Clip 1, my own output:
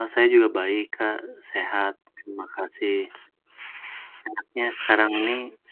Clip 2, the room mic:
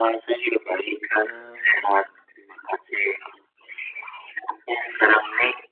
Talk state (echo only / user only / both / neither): both